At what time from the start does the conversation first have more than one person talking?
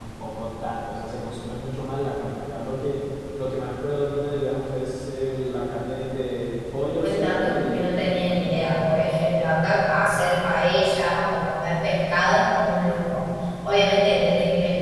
7.0 s

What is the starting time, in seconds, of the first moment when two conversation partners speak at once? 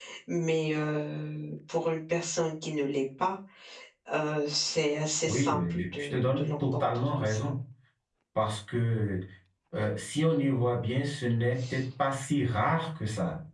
5.2 s

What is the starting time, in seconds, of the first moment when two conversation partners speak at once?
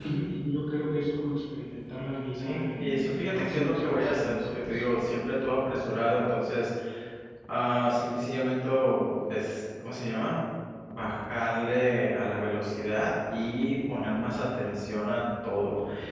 2.3 s

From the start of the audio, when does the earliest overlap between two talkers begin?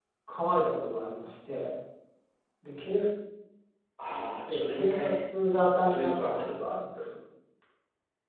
4.5 s

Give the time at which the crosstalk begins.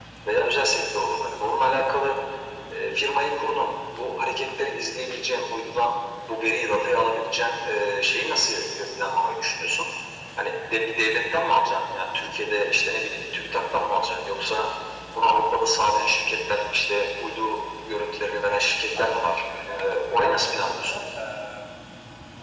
19.0 s

